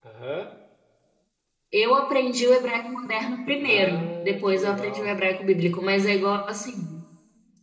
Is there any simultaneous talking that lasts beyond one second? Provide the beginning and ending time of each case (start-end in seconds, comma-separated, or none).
3.6-5.1